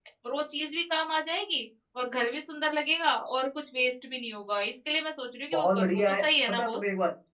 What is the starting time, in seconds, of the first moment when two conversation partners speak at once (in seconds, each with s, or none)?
5.5 s